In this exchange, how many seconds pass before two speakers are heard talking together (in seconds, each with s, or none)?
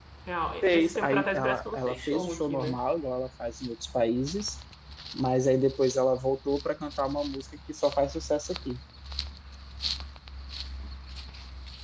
0.6 s